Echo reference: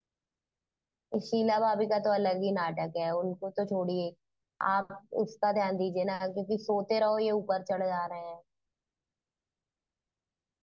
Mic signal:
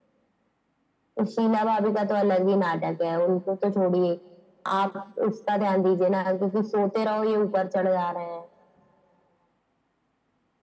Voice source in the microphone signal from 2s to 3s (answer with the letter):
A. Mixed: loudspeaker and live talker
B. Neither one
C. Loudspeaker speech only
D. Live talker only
C